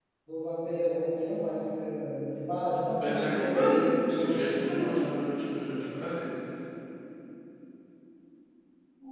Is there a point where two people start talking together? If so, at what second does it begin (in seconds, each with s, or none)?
3.0 s